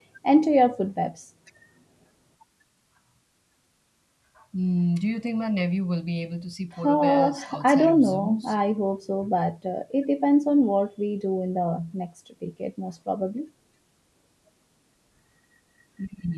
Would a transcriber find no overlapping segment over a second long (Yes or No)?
No